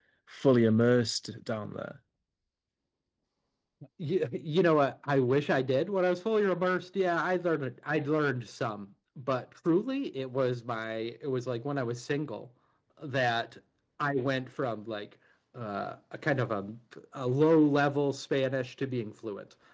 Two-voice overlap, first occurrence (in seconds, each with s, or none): none